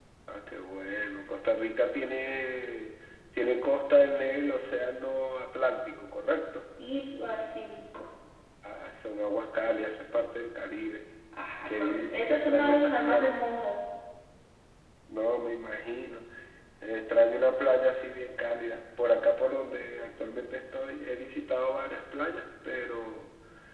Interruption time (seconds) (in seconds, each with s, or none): 11.7 s